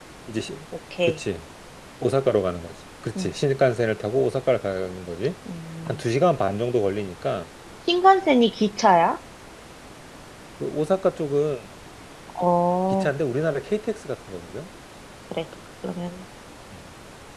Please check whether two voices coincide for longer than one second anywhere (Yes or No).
No